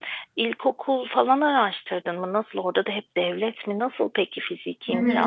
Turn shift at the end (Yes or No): Yes